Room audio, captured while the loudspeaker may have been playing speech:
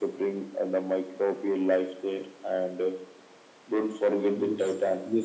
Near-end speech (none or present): present